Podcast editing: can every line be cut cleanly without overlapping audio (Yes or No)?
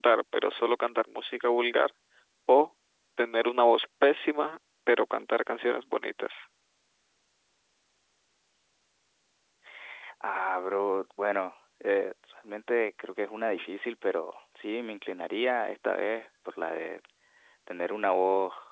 Yes